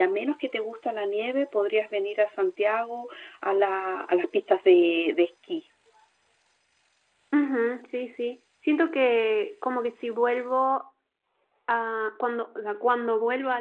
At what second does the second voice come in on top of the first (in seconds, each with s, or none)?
none